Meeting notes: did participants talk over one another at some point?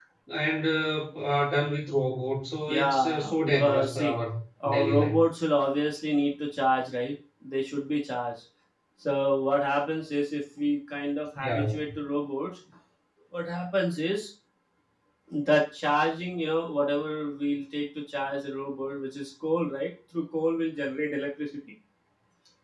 Yes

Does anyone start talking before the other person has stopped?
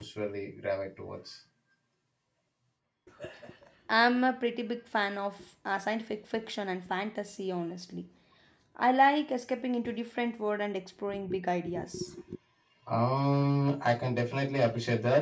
No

